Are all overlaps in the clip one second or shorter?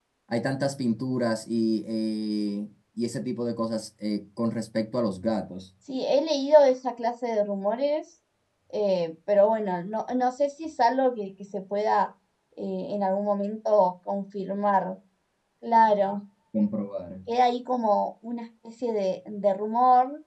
Yes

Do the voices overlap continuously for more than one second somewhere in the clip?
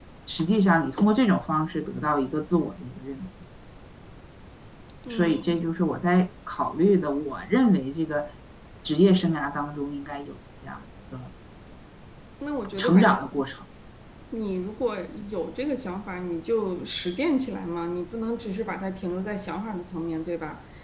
No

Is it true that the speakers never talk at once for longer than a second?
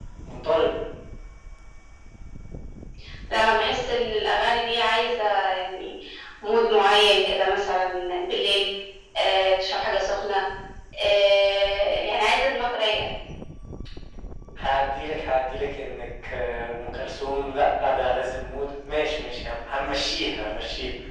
Yes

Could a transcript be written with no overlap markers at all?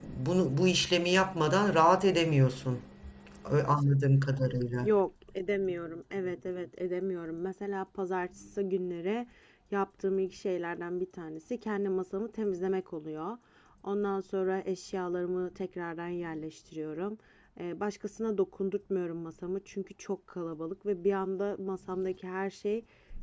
Yes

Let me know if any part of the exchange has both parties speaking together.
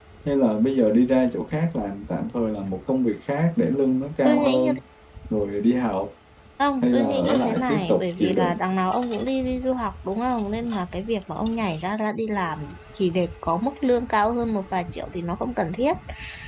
Yes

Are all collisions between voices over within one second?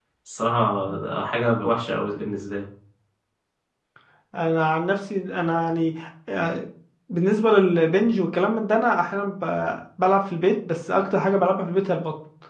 Yes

